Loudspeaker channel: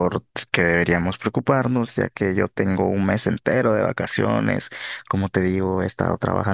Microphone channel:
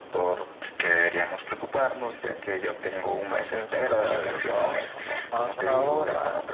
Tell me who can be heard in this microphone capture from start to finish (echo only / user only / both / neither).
both